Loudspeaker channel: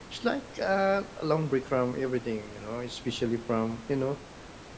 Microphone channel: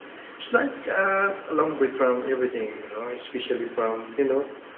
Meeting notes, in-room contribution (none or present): none